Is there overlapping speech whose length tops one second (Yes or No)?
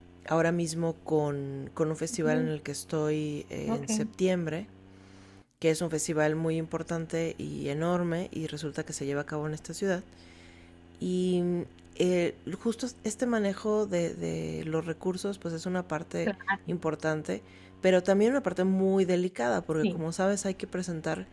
No